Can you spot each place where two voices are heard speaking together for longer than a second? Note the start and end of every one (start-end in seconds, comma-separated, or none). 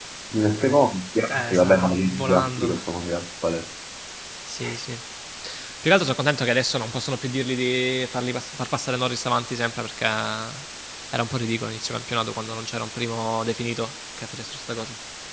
1.3-2.7